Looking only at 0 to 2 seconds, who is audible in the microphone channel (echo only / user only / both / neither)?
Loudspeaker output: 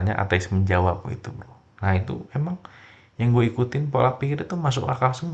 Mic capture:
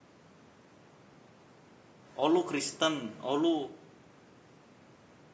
neither